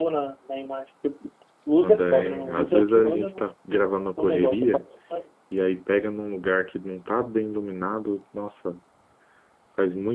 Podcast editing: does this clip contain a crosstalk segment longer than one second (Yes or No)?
Yes